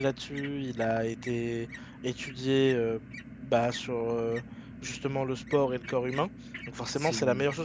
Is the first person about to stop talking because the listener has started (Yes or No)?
No